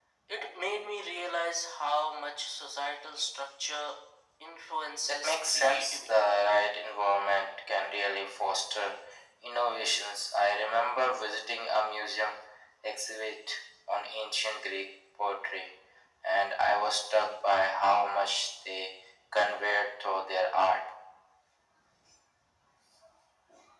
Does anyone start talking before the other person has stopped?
Yes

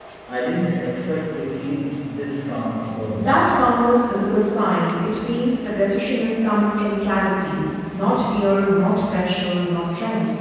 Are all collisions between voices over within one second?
Yes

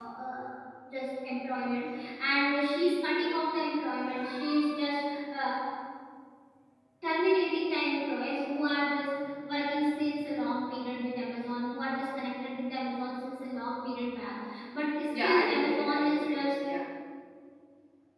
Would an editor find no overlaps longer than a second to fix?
No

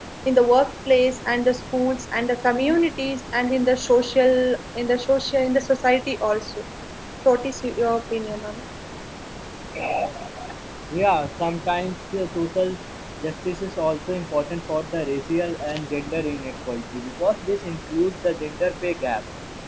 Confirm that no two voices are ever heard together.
Yes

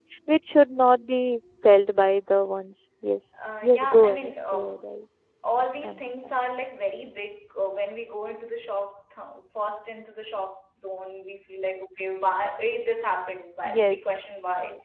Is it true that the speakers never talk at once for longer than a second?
No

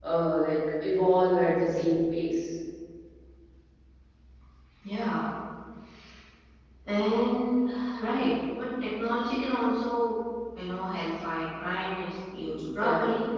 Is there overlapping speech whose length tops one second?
No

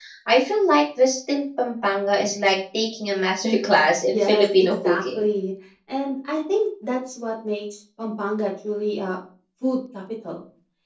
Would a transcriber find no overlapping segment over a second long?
No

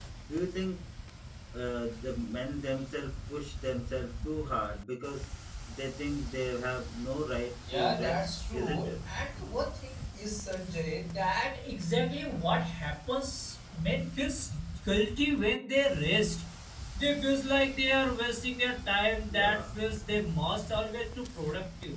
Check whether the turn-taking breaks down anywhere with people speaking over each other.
Yes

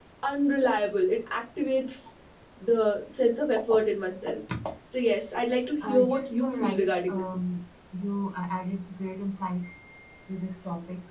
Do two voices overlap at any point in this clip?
Yes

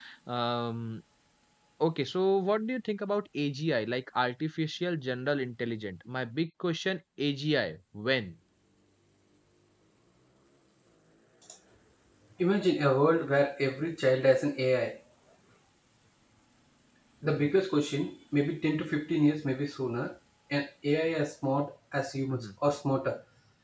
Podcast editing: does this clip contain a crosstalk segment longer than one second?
No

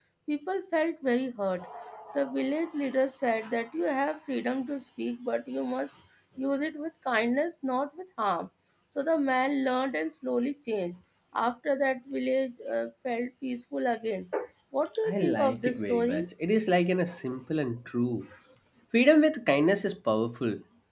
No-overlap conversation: No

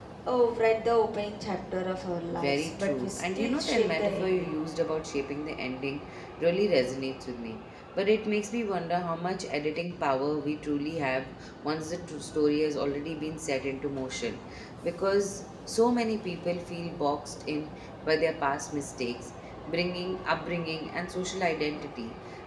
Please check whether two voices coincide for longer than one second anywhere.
Yes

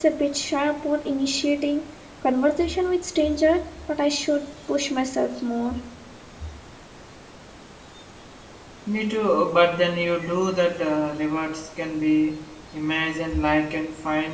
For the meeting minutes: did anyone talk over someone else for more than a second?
No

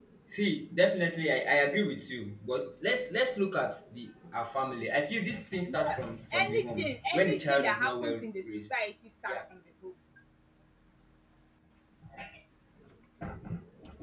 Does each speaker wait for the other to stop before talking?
No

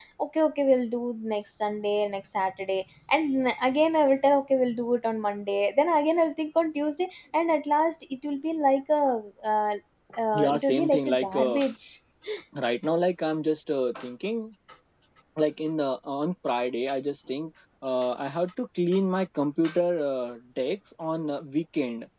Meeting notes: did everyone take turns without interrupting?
No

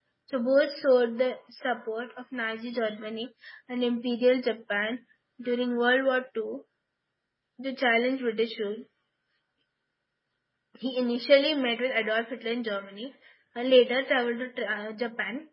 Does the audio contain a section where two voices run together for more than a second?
No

